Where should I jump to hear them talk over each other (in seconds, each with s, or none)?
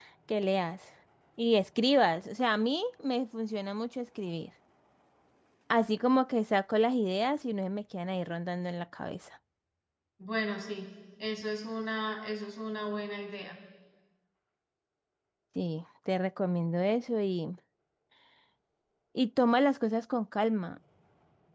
none